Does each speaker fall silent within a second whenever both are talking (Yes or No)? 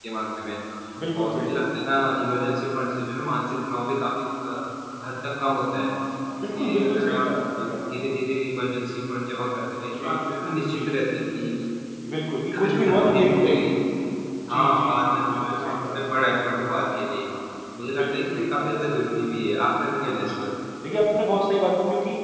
No